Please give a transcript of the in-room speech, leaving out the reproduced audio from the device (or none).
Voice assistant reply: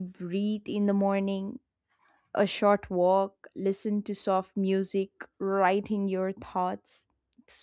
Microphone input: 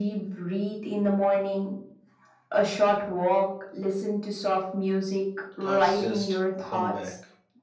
thoughts just come back.